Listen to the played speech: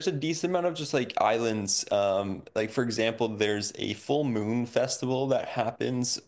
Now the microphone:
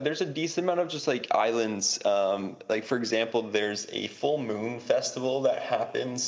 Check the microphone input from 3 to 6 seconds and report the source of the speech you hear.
echo only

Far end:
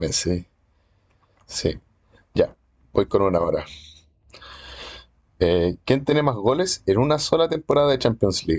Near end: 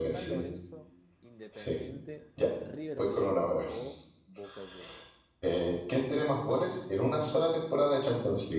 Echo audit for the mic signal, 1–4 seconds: both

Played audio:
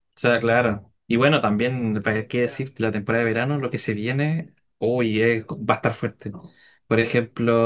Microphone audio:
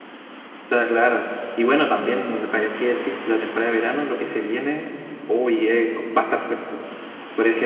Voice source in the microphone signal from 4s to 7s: echo only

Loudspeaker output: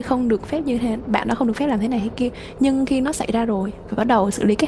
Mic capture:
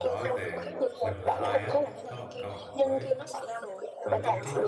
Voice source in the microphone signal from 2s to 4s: both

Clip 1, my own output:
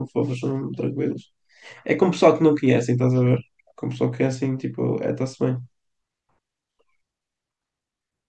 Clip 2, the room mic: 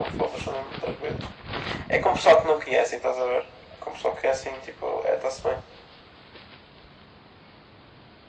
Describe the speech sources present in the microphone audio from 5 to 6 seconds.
echo only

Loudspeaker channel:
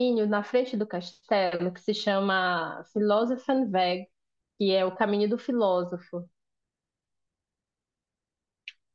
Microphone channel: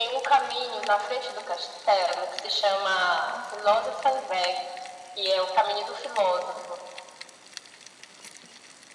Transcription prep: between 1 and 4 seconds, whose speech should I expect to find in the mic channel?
echo only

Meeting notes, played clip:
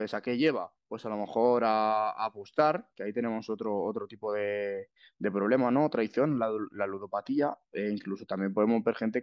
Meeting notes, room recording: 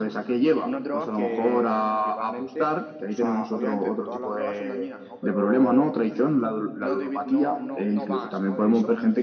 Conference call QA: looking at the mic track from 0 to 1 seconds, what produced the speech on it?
both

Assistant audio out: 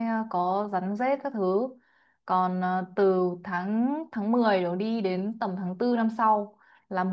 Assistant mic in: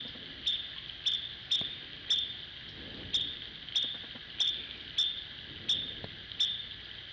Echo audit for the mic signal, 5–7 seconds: neither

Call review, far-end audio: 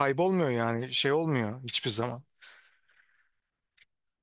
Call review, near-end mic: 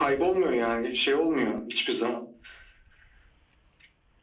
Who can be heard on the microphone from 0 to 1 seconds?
echo only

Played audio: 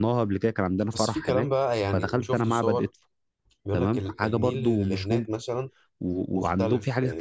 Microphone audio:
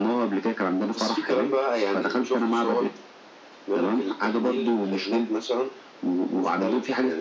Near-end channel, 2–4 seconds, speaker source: echo only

